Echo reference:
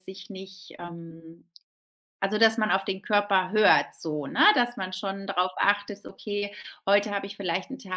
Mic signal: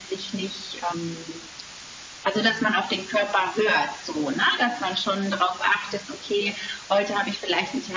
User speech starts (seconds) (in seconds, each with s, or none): none